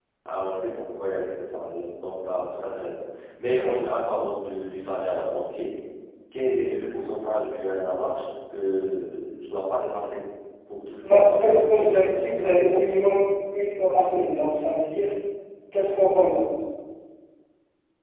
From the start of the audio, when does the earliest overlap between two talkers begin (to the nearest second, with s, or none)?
11 s